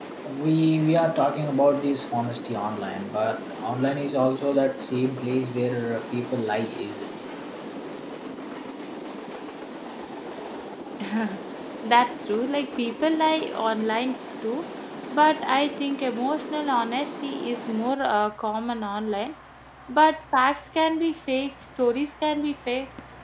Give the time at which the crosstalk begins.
none

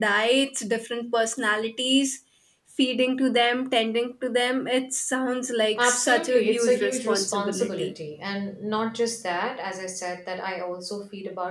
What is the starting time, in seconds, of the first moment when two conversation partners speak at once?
5.8 s

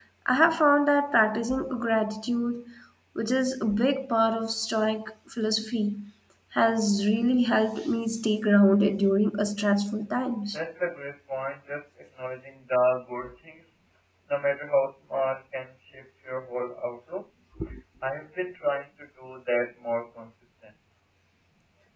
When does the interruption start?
none

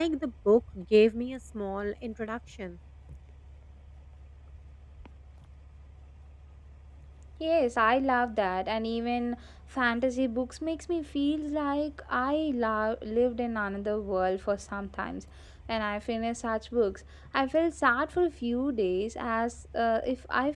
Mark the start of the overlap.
none

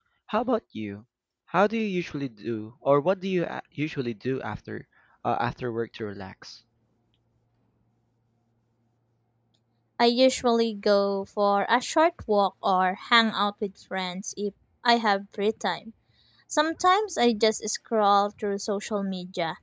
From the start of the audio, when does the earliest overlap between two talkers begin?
none

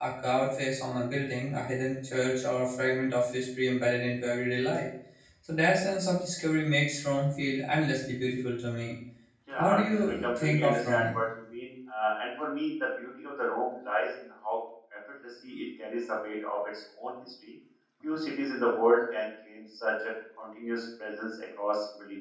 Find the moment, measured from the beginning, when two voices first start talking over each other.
9.6 s

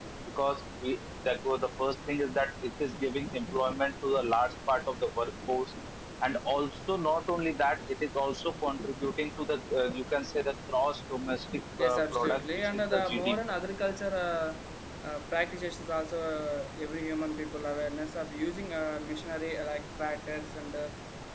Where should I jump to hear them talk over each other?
11.8 s

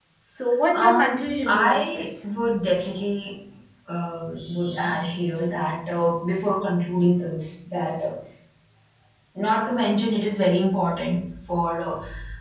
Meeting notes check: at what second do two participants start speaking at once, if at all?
0.7 s

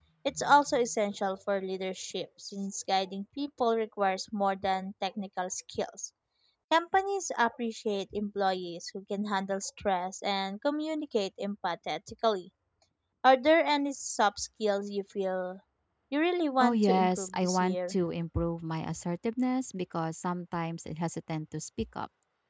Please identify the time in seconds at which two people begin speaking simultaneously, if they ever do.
16.6 s

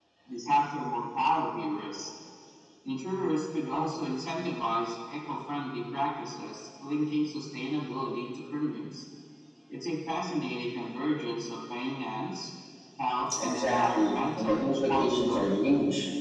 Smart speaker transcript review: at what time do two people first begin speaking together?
13.4 s

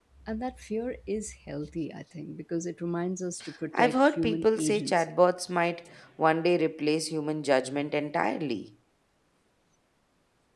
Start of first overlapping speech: 3.7 s

